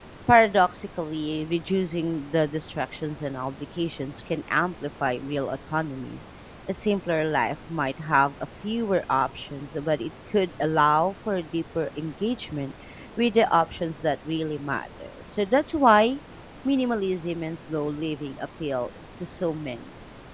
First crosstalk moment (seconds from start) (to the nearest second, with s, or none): none